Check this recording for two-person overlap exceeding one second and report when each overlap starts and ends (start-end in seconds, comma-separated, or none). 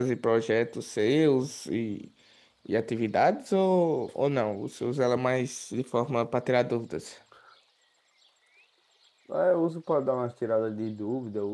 none